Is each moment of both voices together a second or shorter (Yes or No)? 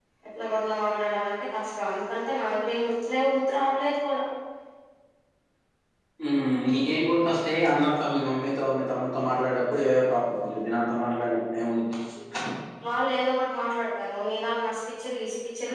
Yes